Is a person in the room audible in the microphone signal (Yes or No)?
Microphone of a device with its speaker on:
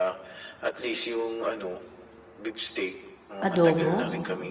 Yes